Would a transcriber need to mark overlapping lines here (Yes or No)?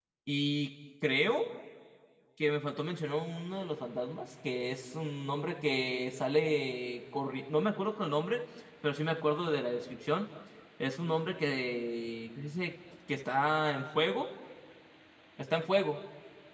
No